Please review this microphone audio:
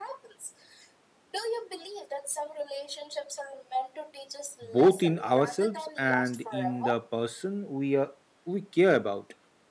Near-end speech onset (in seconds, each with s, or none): 4.6 s